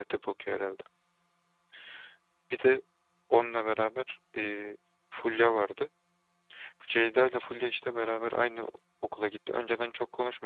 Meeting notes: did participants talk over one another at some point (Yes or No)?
No